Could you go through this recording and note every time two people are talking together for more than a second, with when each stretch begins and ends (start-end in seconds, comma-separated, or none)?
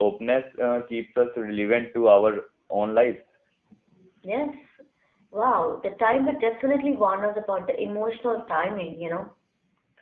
none